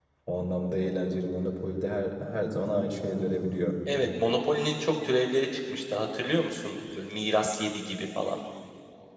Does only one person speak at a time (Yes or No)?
Yes